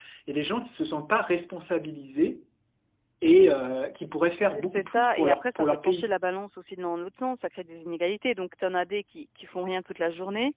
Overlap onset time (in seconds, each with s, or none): 4.5 s